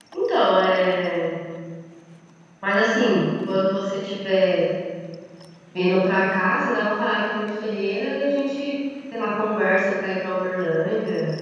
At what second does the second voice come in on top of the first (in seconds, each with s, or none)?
none